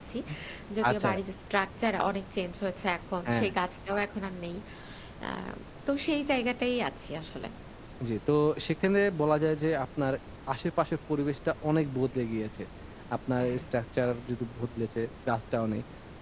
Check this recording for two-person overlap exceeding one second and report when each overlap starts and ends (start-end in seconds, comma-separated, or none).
none